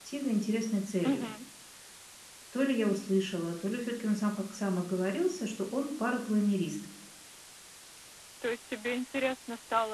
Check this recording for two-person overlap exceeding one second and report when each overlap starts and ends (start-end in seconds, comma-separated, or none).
none